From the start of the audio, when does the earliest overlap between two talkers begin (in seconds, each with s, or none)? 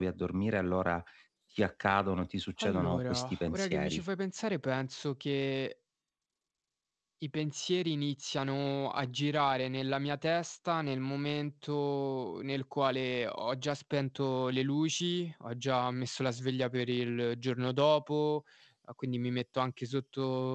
2.6 s